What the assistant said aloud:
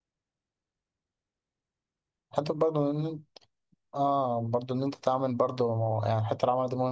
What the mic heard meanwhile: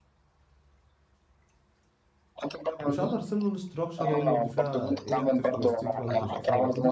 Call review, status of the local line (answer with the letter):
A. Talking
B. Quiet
A